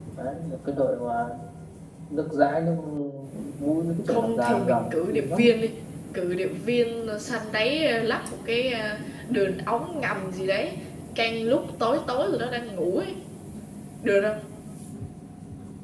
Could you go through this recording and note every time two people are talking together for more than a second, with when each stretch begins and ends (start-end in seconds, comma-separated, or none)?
4.1-5.5